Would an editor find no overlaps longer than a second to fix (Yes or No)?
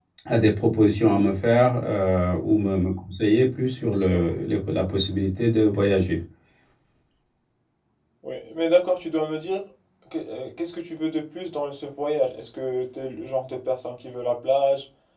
Yes